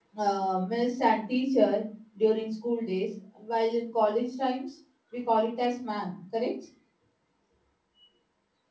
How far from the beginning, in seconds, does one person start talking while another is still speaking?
none

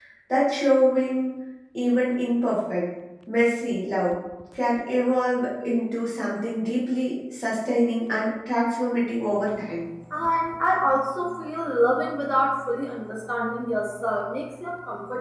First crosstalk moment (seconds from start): none

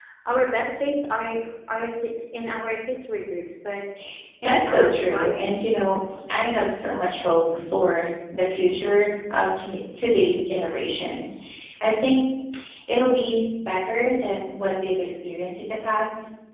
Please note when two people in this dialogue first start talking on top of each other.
4.4 s

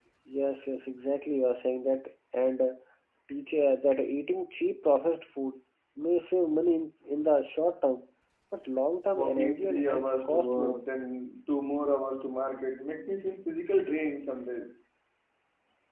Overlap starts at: 9.1 s

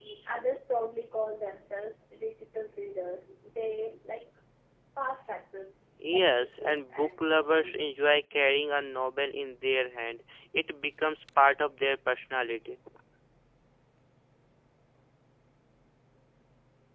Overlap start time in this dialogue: 6.1 s

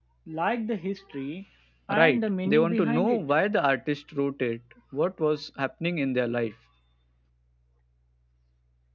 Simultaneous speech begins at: 2.0 s

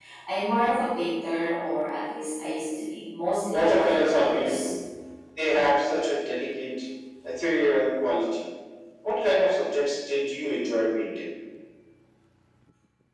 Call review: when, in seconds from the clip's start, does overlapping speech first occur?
3.5 s

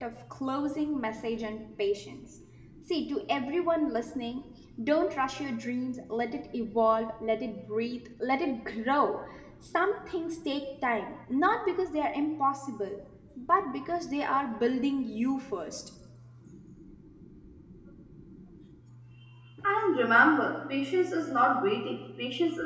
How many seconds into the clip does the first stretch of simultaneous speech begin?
none

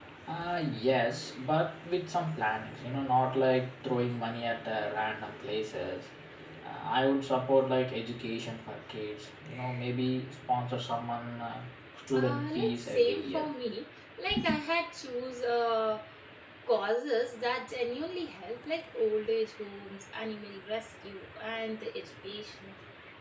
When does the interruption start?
12.1 s

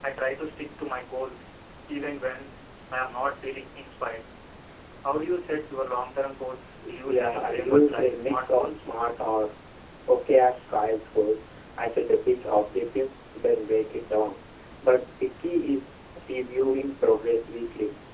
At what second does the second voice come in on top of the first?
6.8 s

